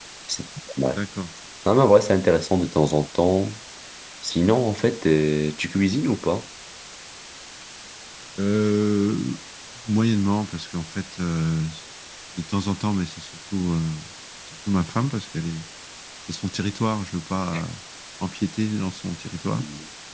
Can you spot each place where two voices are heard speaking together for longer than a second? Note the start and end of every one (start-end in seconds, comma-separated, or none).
none